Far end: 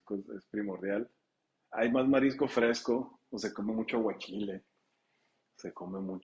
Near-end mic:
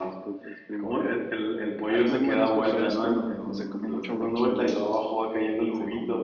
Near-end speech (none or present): present